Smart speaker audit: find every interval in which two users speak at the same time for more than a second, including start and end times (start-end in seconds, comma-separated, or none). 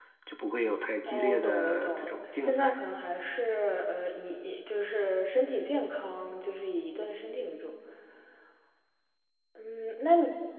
1.1-2.8